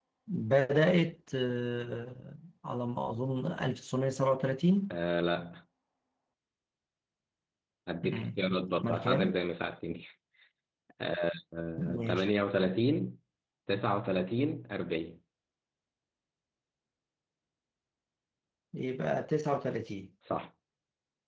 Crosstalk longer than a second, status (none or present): none